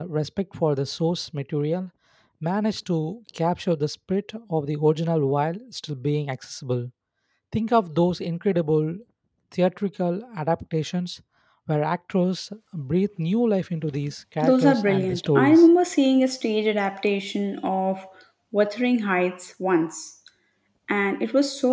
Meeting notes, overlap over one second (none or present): present